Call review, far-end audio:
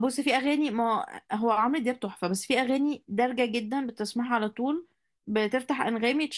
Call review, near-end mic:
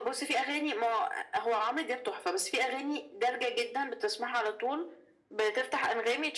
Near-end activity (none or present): none